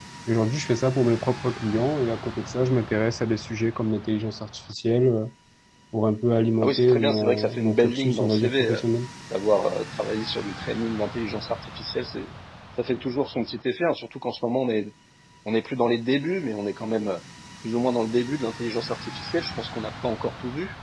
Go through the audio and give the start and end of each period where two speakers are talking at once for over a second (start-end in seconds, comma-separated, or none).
6.6-8.8